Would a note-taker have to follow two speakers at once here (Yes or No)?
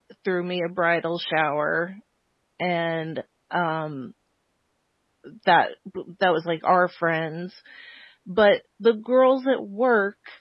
No